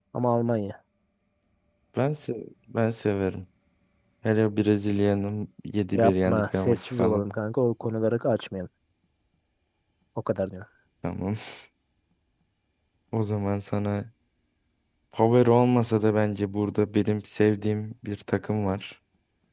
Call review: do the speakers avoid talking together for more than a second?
No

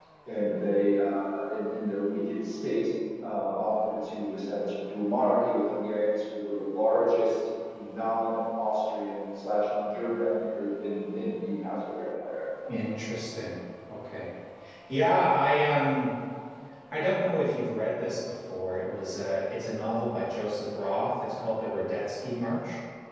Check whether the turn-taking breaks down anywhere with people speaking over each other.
No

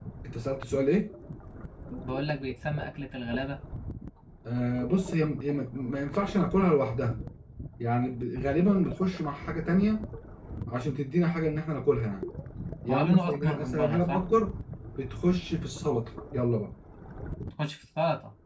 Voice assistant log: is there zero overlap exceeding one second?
No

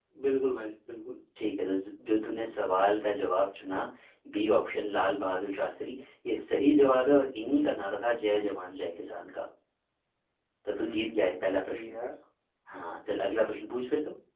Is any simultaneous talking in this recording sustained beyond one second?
Yes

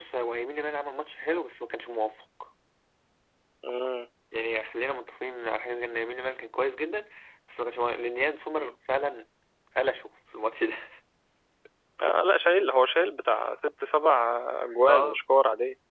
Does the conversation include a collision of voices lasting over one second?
No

